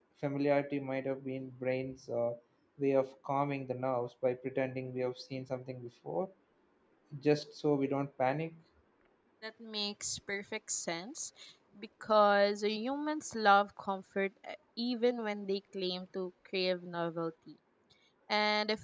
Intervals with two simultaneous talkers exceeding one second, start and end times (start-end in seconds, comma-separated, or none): none